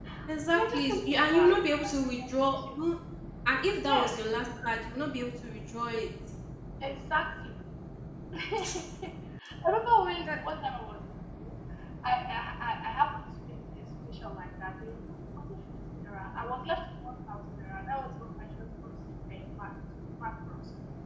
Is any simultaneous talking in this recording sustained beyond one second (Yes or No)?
Yes